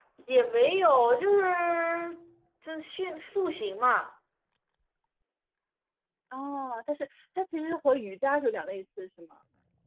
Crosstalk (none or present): none